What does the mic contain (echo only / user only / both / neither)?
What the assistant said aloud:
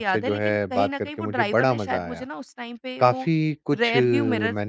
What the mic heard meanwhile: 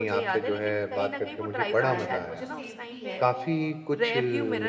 both